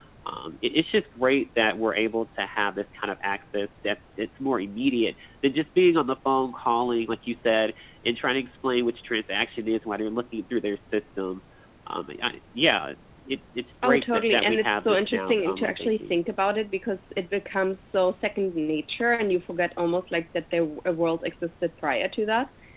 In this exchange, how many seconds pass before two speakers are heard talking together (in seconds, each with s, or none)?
13.8 s